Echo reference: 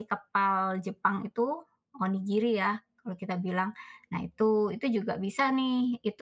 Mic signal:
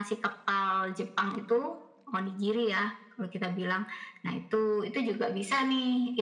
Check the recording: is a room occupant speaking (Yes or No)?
No